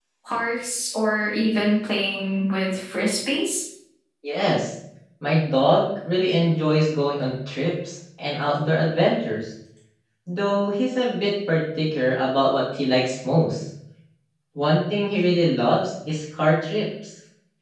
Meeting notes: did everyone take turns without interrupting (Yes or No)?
Yes